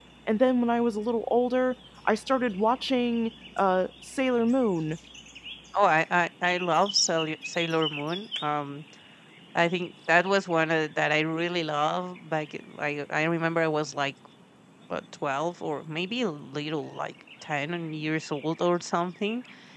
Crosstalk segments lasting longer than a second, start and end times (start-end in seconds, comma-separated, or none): none